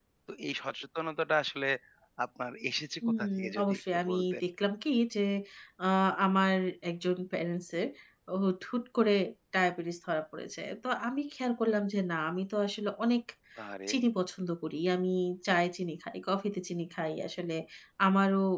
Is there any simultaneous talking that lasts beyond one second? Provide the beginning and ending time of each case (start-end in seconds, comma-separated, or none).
3.2-4.4